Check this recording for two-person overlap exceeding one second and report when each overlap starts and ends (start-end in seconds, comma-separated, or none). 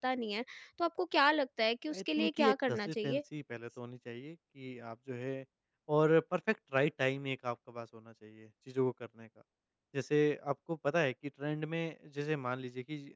1.9-3.2